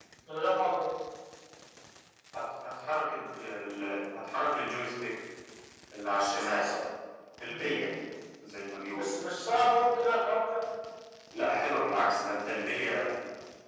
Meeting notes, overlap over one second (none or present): none